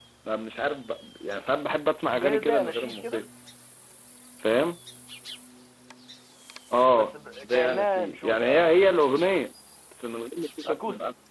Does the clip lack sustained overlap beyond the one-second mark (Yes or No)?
No